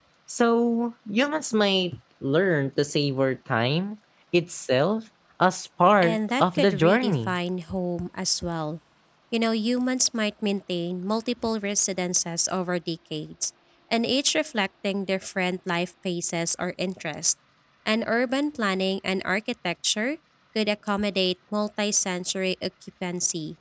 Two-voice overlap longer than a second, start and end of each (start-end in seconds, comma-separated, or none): 6.0-7.3